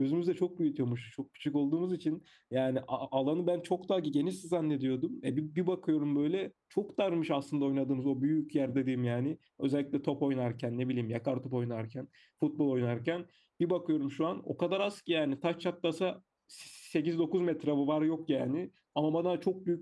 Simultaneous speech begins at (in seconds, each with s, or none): none